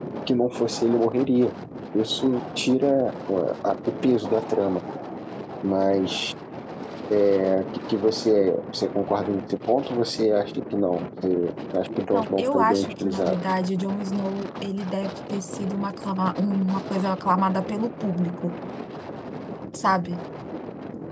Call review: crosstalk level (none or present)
present